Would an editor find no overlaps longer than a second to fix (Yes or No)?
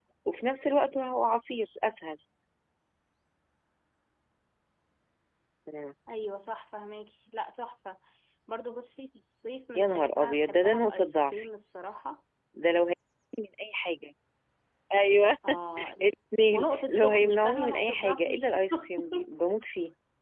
No